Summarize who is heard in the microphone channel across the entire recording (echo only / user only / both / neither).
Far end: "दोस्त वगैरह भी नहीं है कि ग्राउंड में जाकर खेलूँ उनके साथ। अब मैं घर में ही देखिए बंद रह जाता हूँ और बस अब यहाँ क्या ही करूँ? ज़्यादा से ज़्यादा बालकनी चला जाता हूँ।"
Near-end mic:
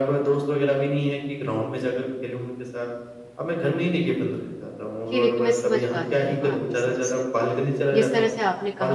both